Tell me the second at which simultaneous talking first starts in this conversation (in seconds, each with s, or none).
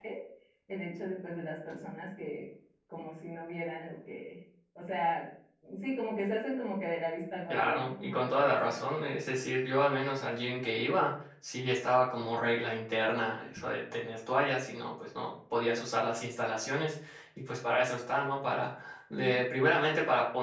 7.5 s